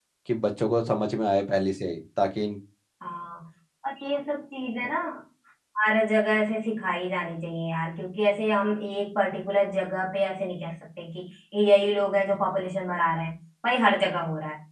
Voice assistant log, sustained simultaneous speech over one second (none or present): none